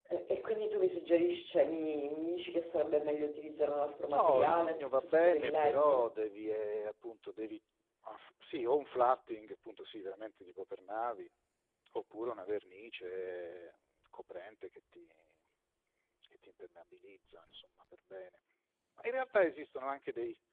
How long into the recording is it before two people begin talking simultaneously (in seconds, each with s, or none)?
4.1 s